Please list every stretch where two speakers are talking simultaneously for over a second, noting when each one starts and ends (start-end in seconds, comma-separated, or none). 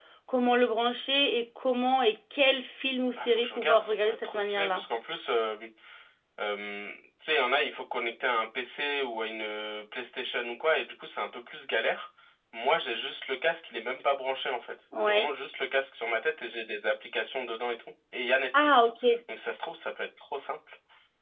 3.2-4.8